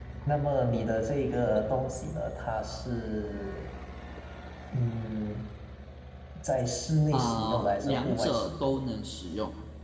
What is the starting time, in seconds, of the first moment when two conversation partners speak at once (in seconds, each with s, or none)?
7.1 s